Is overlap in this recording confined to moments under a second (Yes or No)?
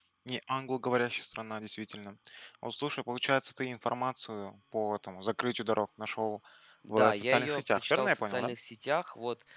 No